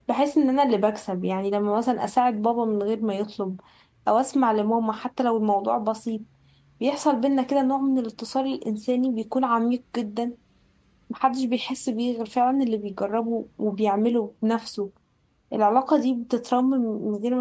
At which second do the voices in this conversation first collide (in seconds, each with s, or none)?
none